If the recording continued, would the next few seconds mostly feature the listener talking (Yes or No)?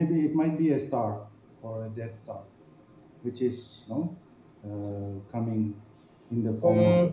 Yes